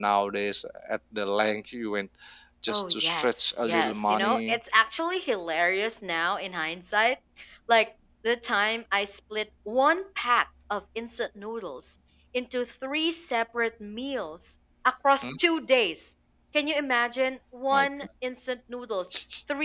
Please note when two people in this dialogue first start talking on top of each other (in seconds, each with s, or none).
2.7 s